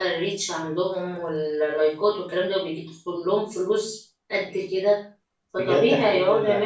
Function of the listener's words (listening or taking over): taking over